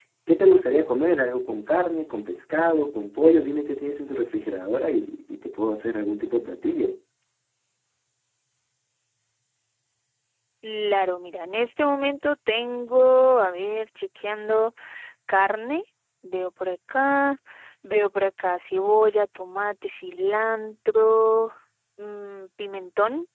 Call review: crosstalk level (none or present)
none